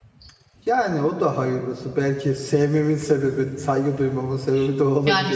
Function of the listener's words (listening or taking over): taking over